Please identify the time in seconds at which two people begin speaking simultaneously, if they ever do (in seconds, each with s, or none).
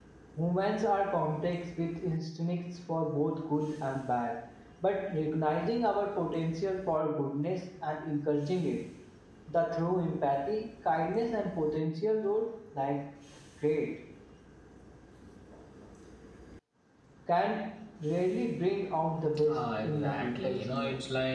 19.4 s